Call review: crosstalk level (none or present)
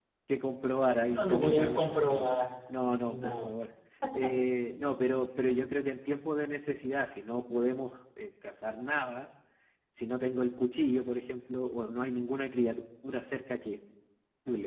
present